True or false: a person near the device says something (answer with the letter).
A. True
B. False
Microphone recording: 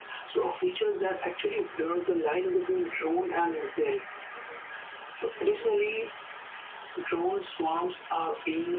B